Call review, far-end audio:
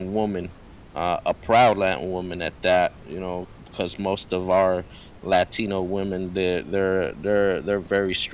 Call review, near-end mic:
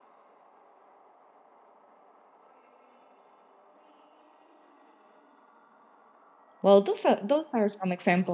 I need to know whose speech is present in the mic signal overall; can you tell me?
user only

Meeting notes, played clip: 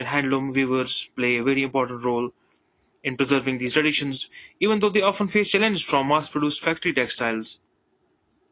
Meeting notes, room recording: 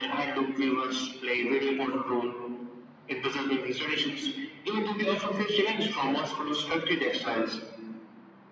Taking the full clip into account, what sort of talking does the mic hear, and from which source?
echo only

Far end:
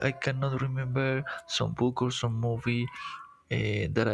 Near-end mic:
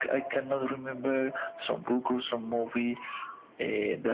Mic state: echo only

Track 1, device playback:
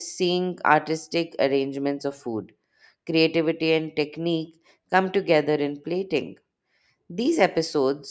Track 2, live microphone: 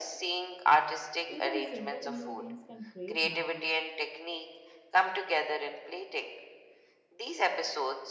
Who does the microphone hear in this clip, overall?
both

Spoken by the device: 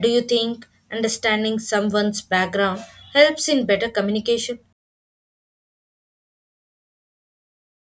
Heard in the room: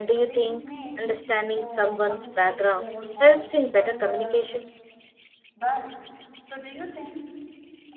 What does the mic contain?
both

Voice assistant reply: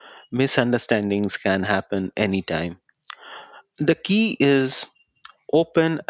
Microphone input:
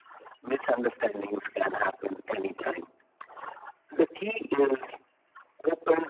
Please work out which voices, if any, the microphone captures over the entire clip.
echo only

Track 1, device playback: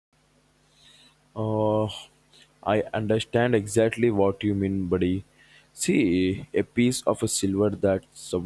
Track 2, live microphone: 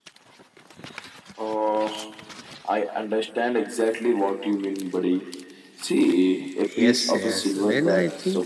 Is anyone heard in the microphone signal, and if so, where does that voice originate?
both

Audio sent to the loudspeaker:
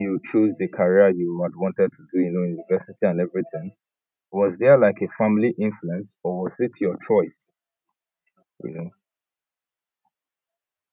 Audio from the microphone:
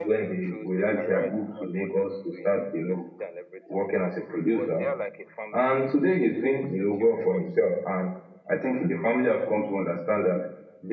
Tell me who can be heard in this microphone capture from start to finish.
both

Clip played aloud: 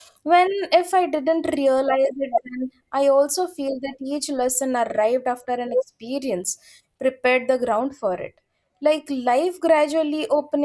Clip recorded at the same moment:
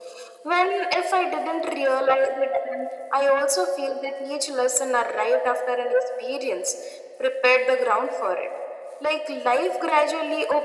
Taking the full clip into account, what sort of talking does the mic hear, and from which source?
echo only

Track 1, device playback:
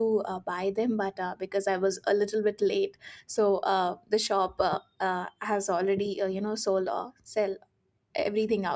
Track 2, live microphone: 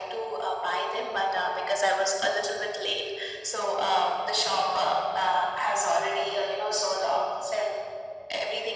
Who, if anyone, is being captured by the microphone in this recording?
echo only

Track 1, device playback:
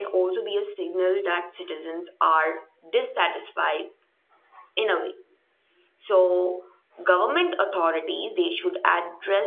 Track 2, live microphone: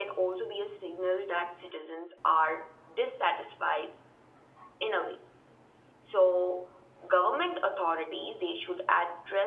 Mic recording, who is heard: echo only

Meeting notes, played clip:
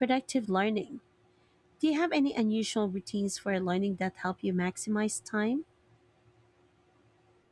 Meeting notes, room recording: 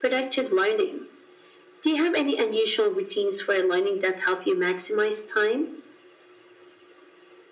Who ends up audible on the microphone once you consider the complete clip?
echo only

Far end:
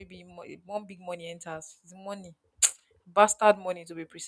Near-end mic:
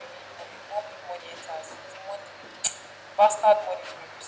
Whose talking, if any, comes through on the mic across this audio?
echo only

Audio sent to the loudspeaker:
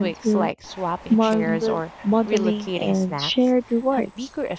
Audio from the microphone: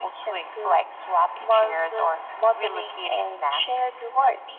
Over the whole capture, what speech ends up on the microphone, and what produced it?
echo only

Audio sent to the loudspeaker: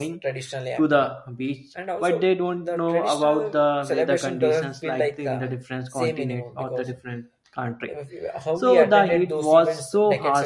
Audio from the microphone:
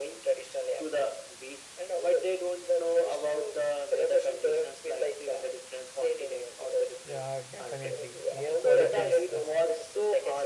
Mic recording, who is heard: both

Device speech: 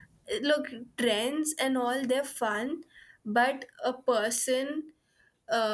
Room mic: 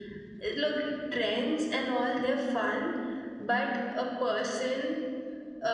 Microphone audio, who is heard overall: echo only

